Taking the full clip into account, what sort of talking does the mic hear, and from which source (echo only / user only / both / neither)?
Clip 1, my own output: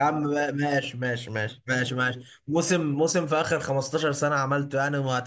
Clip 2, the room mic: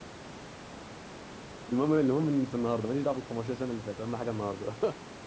user only